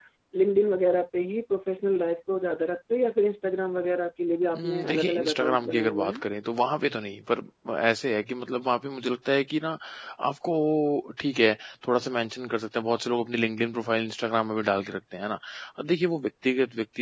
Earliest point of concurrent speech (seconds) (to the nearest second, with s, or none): 5 s